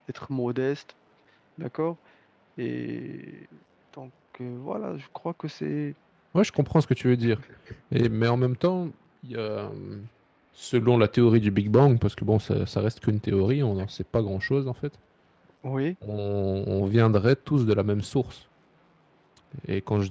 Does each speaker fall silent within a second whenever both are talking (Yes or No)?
Yes